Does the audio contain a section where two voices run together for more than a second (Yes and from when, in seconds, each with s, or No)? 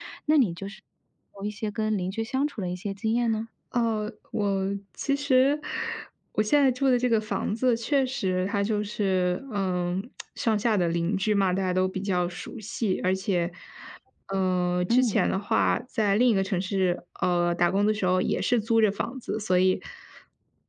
No